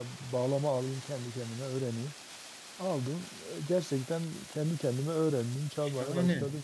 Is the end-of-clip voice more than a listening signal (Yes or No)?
Yes